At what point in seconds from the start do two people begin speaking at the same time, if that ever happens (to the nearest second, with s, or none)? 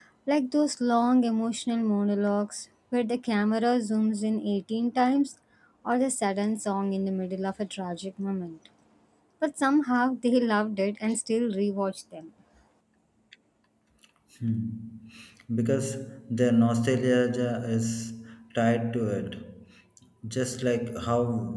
none